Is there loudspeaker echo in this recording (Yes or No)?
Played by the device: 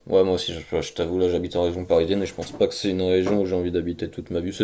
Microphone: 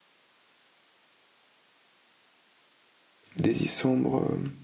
No